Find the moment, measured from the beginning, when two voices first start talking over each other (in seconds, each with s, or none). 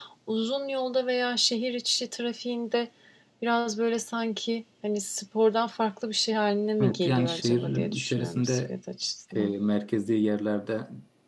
6.8 s